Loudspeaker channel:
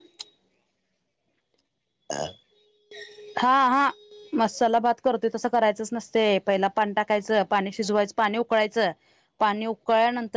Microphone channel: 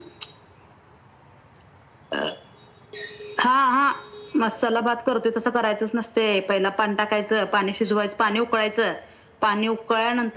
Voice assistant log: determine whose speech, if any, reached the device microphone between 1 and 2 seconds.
neither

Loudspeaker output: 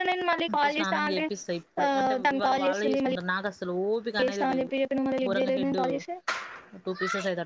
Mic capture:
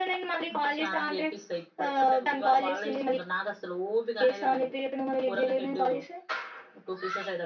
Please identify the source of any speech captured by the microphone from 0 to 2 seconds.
echo only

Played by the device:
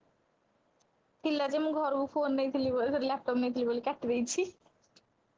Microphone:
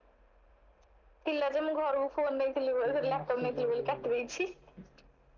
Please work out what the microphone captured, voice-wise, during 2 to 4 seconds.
both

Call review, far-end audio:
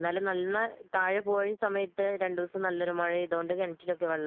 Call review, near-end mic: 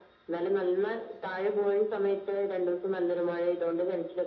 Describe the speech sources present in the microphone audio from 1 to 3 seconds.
echo only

